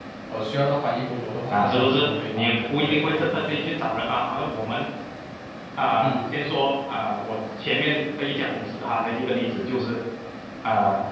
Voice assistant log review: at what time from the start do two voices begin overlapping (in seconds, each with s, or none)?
1.5 s